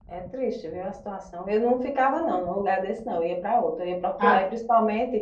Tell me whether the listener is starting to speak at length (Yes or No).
No